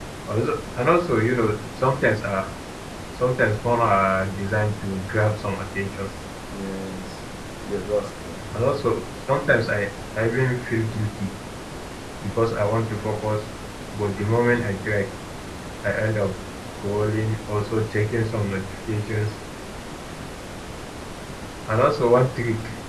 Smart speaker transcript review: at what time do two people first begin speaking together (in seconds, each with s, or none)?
none